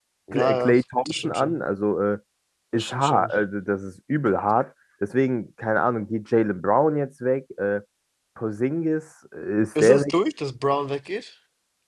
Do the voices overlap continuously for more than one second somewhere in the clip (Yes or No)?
Yes